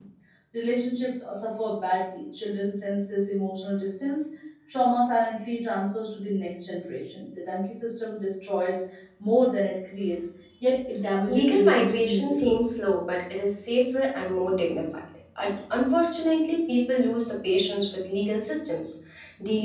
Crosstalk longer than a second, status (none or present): present